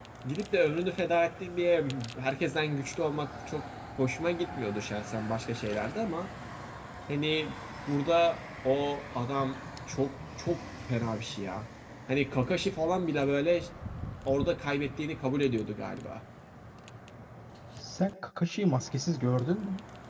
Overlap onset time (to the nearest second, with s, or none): none